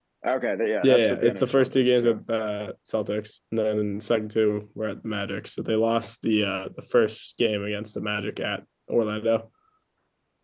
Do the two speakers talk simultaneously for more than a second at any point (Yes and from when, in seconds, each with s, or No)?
Yes, from 0.8 s